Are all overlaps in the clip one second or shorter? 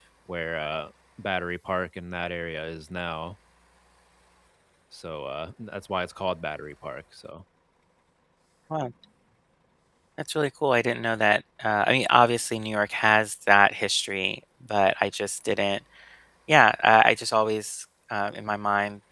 Yes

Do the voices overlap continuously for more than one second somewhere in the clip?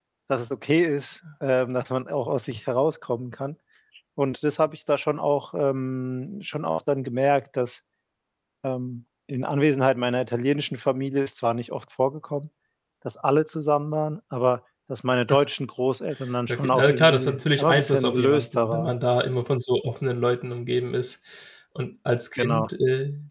Yes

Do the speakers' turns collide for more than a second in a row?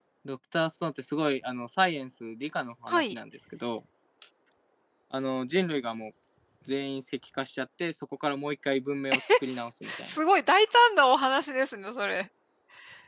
No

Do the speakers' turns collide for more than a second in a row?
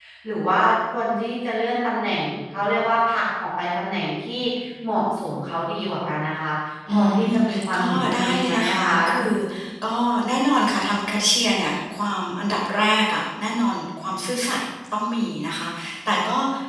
Yes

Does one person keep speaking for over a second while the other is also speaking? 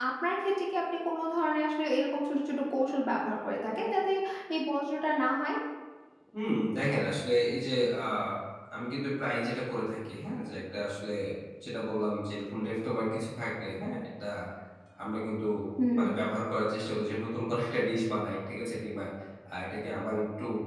No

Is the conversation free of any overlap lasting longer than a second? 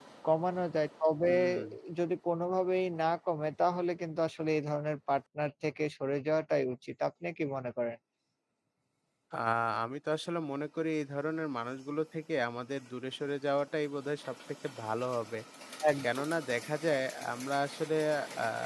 Yes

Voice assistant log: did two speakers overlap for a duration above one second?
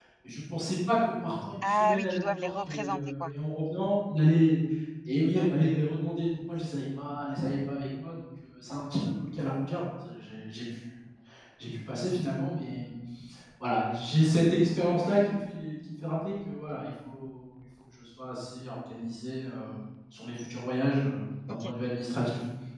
Yes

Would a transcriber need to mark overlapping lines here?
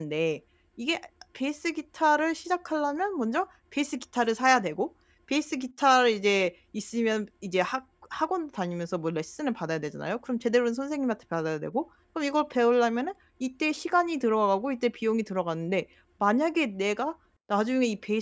No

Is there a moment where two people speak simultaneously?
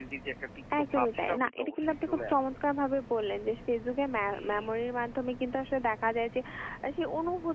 Yes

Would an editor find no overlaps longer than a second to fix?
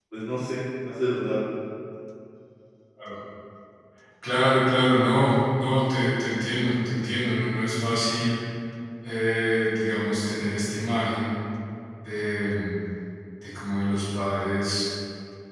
Yes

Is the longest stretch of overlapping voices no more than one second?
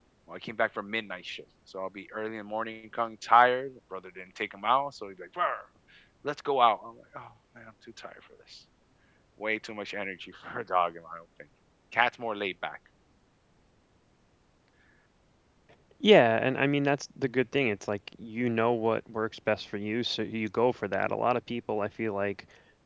Yes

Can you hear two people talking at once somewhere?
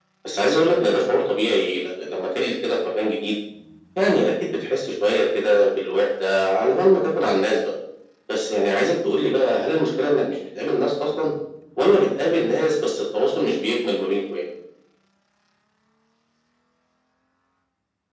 No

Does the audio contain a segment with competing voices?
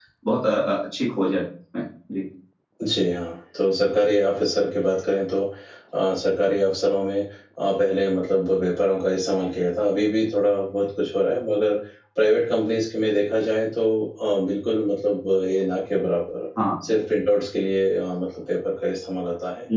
No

